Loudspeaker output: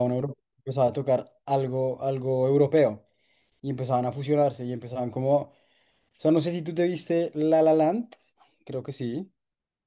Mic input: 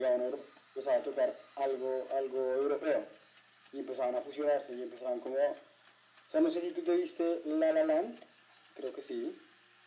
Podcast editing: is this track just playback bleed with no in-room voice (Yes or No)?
Yes